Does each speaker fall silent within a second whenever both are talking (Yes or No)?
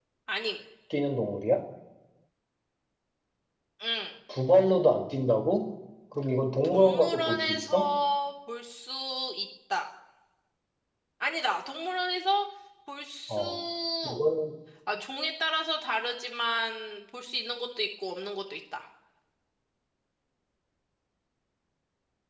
No